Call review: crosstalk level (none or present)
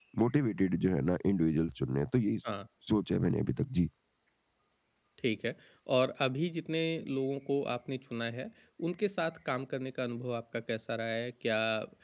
none